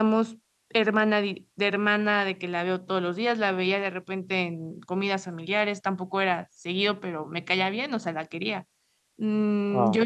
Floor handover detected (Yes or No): Yes